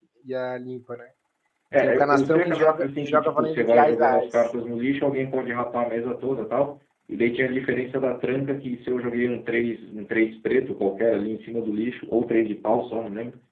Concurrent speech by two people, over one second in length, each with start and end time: 1.8-4.3

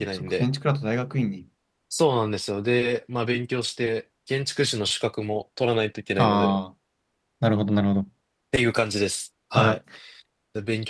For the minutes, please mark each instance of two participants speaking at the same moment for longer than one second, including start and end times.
none

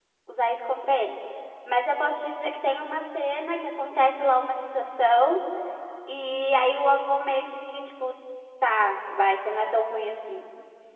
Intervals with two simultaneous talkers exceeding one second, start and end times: none

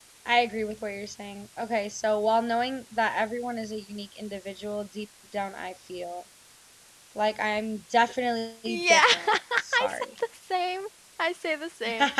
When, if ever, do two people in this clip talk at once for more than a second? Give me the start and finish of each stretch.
8.7-10.1

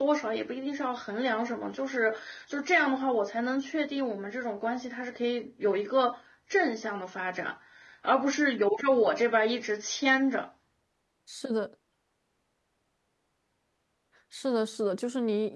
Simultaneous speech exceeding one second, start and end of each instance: none

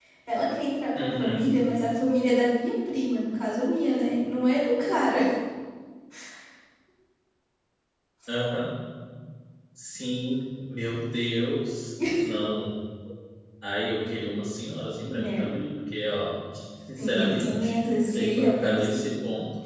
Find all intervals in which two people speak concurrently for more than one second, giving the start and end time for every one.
17.0-19.1

